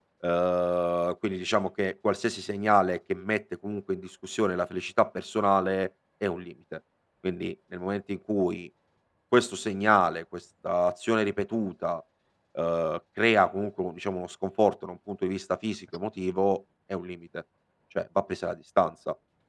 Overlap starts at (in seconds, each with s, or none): none